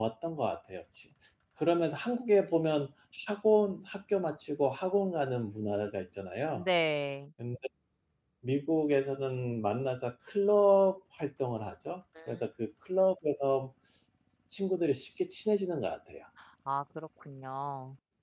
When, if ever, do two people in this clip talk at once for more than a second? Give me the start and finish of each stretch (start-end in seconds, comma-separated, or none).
none